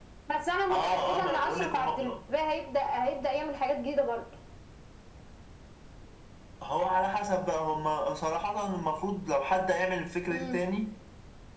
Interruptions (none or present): present